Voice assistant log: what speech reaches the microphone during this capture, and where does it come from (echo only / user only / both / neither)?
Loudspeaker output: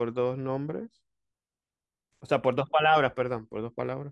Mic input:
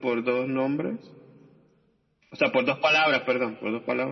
echo only